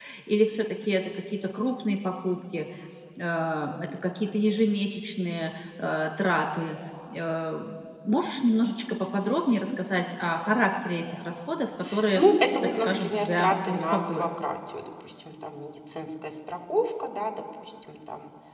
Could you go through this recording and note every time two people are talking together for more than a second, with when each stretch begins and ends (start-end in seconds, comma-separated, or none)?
12.6-14.3